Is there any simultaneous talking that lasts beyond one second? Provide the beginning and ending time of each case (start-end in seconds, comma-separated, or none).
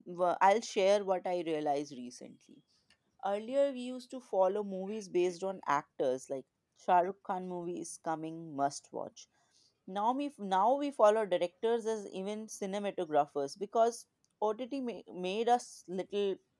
none